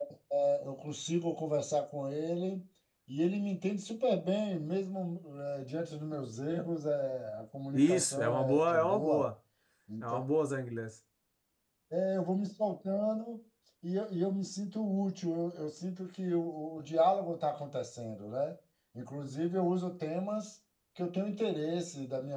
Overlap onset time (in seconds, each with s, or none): 7.7 s